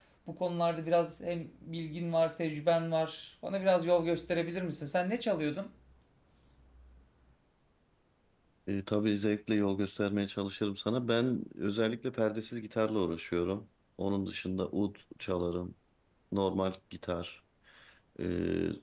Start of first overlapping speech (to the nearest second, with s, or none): none